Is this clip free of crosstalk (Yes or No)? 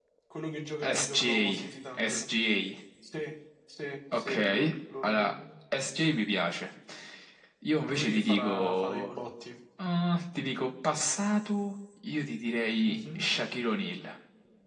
No